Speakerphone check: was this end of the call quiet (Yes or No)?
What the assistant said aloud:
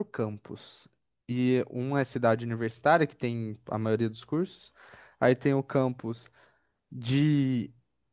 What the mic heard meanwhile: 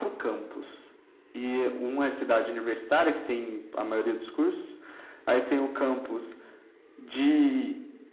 Yes